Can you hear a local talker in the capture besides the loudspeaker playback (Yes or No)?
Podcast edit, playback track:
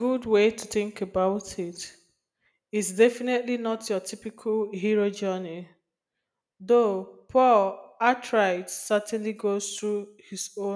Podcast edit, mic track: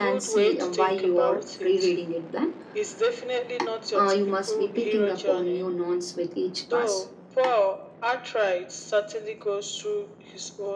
Yes